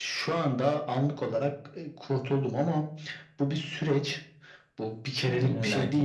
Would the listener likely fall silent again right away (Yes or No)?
Yes